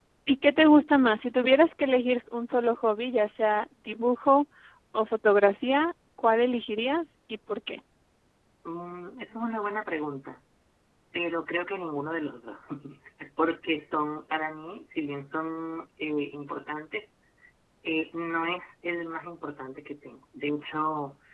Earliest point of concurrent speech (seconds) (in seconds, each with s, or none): none